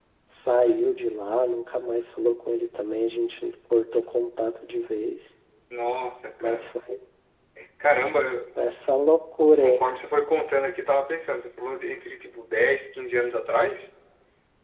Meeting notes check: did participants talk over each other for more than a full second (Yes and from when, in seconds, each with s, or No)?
No